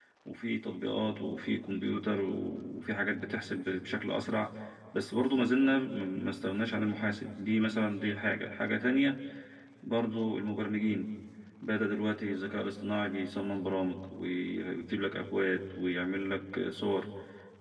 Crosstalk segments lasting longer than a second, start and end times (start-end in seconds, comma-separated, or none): none